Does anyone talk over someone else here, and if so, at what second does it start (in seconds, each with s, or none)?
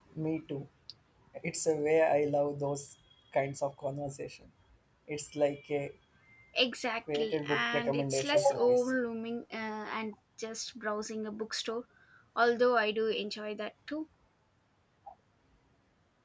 7.1 s